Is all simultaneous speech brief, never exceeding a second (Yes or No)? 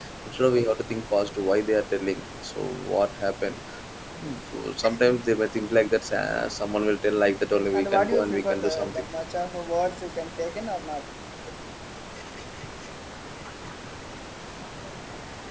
No